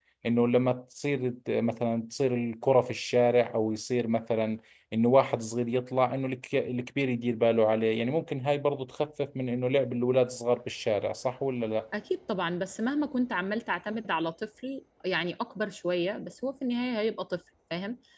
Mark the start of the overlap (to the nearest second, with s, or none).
none